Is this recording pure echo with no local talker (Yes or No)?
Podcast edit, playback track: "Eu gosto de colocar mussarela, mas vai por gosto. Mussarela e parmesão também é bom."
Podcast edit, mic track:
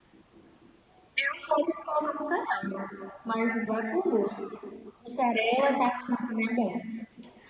Yes